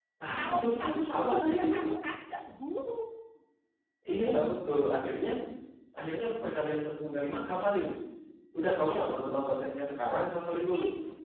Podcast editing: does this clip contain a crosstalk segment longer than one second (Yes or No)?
Yes